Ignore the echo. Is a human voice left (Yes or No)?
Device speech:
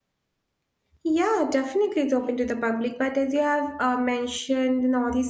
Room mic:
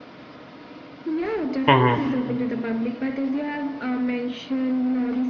Yes